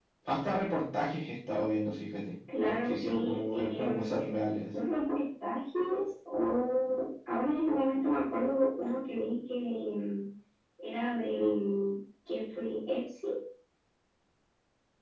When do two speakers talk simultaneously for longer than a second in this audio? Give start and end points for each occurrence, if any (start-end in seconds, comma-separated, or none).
2.7-4.3